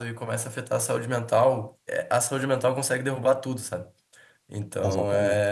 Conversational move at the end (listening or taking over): listening